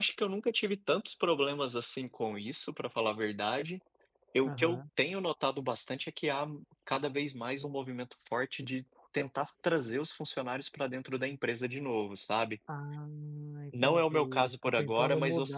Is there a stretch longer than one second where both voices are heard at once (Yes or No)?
Yes